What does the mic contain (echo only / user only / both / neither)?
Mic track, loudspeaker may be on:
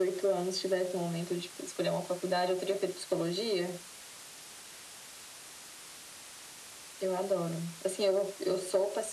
echo only